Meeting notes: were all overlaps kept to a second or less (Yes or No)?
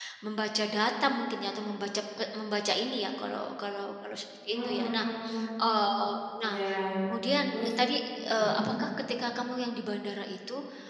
Yes